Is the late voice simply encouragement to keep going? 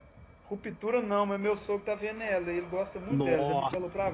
No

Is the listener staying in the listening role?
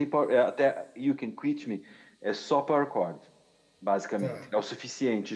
Yes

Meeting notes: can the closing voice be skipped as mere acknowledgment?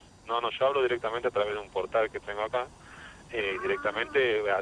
Yes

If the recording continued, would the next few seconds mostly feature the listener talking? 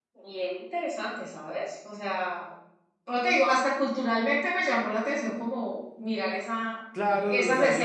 Yes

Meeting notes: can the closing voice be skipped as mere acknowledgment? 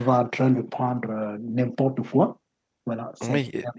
No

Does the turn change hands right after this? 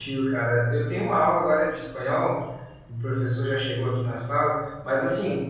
No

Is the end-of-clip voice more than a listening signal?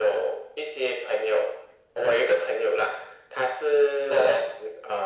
No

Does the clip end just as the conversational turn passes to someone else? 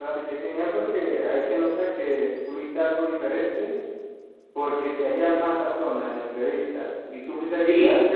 No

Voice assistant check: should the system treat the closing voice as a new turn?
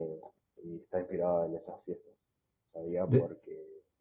No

